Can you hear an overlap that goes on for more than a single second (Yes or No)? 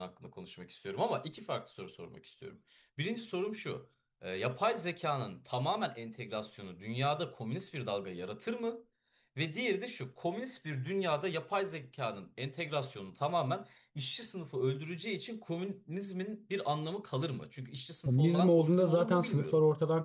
Yes